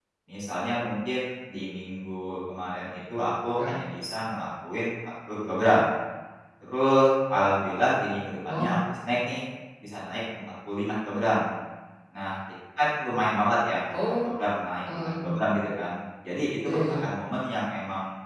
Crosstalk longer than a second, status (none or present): none